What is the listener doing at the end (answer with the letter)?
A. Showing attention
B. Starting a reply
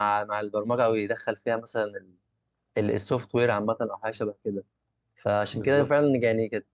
A